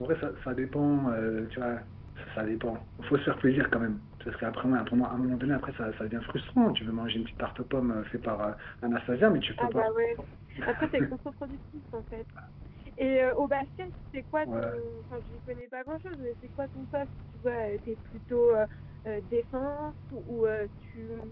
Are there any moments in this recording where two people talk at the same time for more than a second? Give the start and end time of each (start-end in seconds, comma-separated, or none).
none